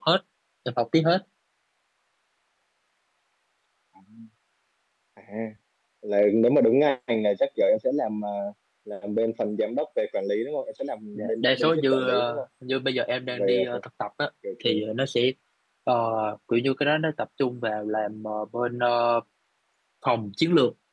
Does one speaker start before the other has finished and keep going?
Yes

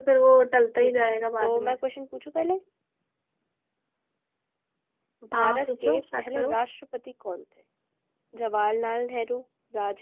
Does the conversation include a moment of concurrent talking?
Yes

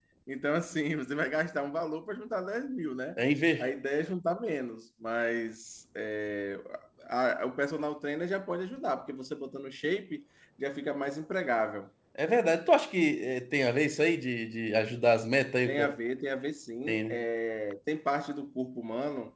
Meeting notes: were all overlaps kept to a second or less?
Yes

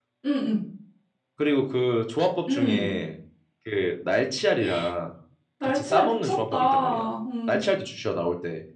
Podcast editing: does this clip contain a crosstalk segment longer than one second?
Yes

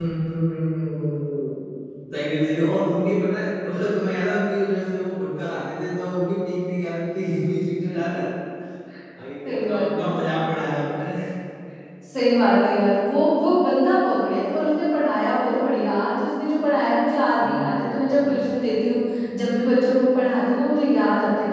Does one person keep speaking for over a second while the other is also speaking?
Yes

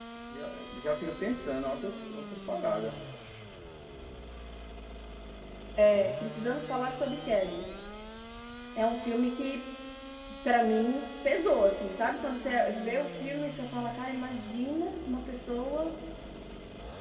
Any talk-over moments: No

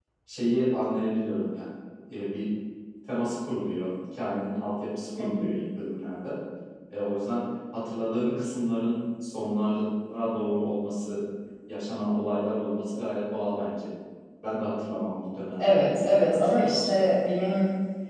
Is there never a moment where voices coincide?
No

